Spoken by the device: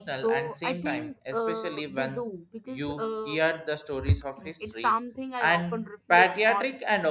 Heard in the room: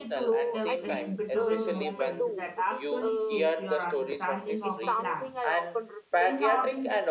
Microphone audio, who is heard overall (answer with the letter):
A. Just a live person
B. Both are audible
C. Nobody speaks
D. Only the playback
B